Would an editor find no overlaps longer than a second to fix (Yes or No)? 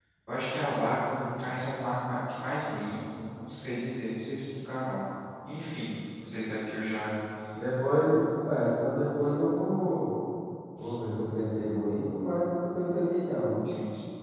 Yes